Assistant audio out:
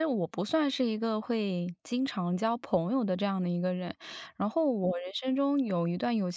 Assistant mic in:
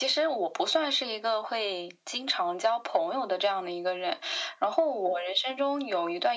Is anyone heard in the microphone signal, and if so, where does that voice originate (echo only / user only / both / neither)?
echo only